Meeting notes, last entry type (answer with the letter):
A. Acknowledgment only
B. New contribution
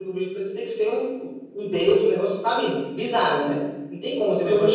B